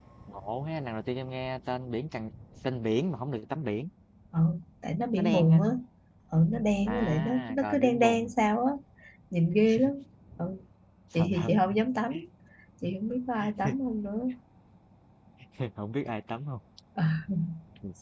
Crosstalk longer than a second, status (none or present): present